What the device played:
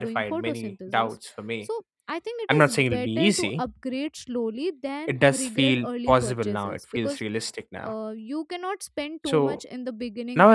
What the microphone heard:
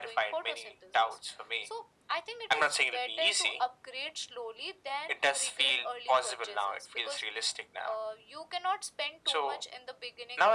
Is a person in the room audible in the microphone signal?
No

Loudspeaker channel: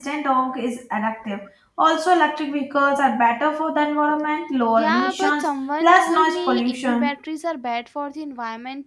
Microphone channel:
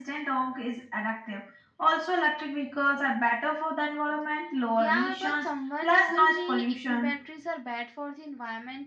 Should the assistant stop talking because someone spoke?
No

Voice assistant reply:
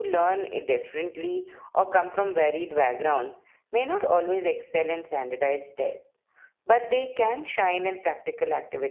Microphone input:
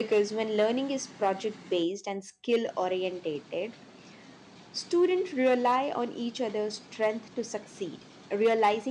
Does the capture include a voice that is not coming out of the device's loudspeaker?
Yes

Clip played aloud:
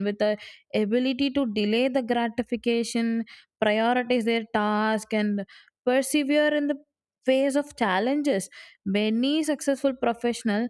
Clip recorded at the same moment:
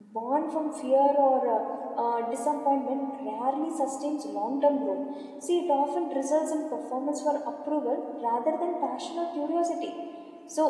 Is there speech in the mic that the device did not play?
Yes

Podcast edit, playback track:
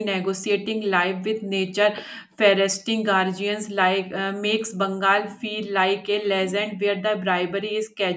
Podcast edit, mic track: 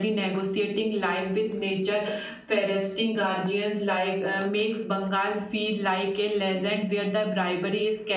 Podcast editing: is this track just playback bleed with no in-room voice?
Yes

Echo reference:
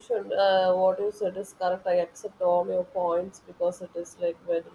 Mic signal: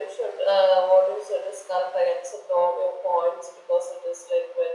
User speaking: No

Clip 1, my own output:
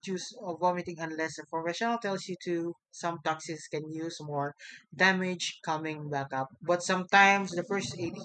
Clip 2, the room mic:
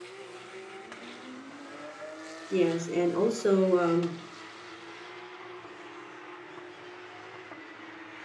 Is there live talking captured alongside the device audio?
Yes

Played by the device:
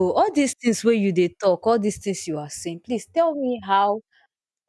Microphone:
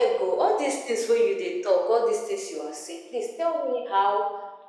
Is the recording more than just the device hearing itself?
No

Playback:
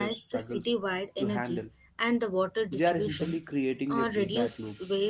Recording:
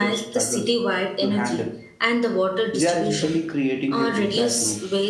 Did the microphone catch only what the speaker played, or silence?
Yes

